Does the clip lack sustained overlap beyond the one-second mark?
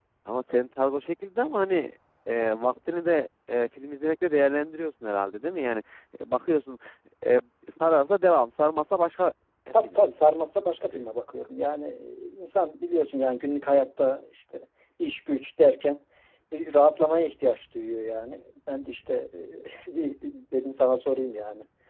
Yes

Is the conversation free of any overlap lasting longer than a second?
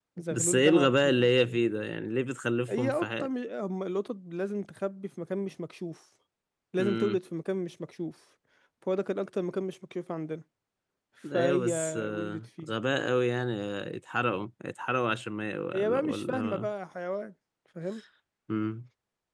No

